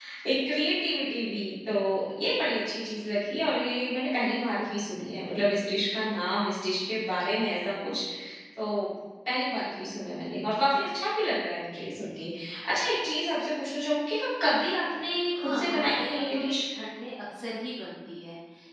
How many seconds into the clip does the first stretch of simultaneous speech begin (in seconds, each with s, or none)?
15.3 s